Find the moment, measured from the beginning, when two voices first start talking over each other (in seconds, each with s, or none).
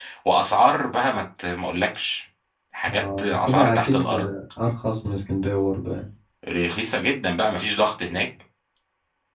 2.9 s